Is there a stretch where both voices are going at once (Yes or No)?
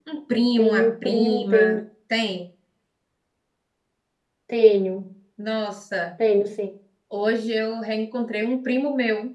Yes